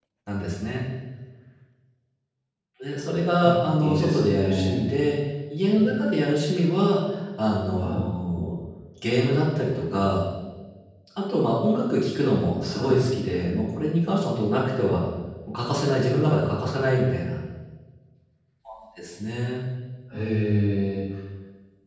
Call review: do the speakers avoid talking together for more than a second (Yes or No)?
No